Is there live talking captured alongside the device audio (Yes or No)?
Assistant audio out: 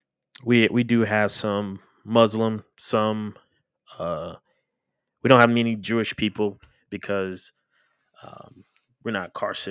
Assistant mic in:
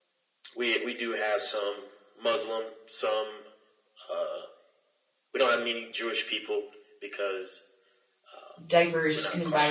Yes